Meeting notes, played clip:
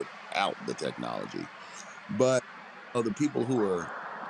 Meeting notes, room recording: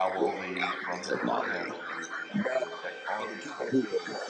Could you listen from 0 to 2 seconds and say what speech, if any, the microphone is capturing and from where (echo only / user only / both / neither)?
both